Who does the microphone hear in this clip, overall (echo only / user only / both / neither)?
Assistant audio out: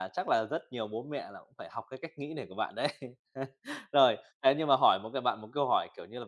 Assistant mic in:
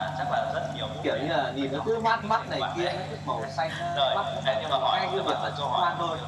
both